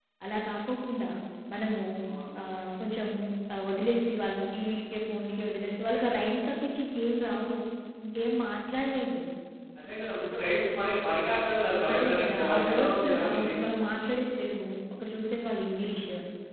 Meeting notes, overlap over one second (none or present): present